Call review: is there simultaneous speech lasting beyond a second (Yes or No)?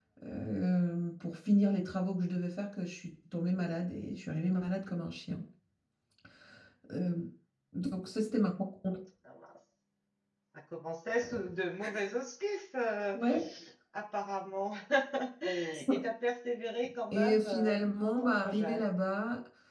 Yes